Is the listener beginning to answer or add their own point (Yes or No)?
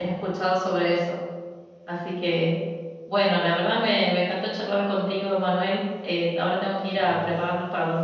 No